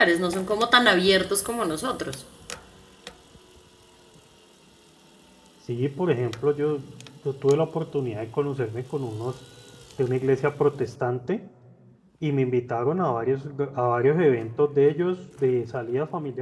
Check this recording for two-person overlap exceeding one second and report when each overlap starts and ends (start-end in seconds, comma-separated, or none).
none